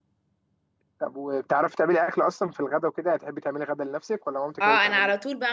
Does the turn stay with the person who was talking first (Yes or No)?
No